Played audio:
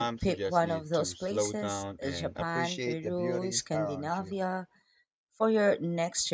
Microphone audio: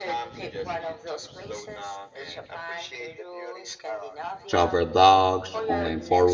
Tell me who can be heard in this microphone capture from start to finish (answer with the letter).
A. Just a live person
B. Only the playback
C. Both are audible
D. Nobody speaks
C